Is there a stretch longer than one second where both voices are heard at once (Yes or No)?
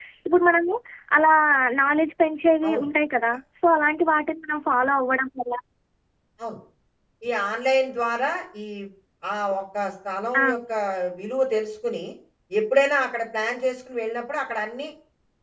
No